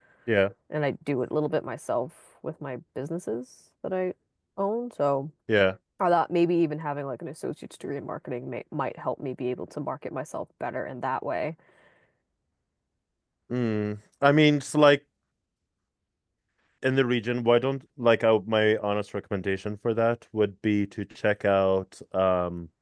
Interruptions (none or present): none